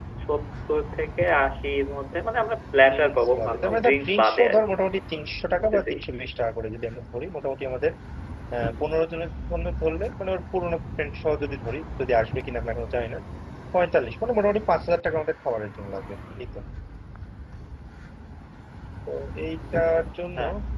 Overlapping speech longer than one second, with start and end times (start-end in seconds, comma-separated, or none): 2.9-4.6